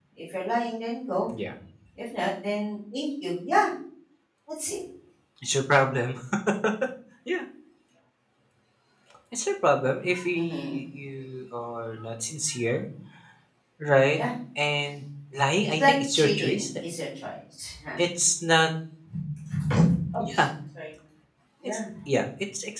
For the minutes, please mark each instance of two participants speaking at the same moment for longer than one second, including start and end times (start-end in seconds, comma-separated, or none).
15.6-16.8